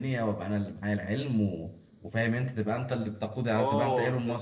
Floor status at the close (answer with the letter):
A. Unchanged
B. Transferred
B